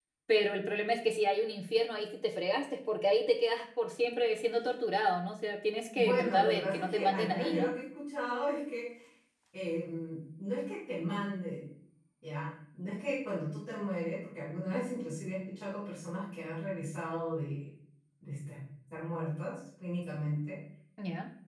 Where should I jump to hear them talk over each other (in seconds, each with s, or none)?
6.0 s